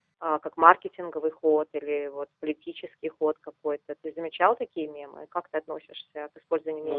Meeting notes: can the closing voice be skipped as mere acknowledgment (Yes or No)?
No